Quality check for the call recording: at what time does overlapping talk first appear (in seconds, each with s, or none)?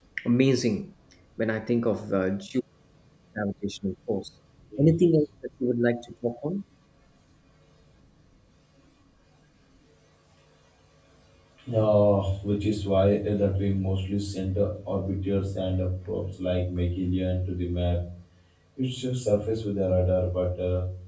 none